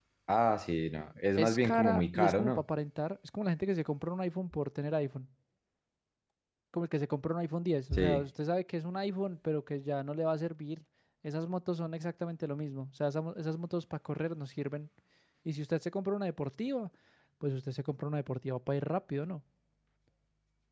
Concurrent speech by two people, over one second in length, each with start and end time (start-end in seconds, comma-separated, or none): 1.4-2.6